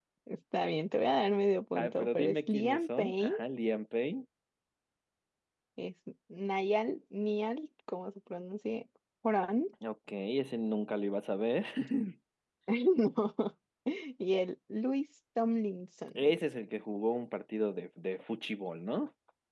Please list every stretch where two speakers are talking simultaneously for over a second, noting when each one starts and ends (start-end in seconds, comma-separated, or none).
1.8-3.3